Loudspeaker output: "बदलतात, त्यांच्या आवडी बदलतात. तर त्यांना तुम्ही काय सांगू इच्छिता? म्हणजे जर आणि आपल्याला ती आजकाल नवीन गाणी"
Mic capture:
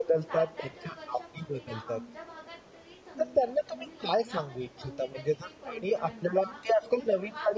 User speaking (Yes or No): Yes